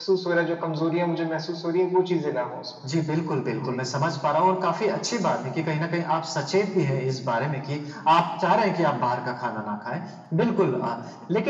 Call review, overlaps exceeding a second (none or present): none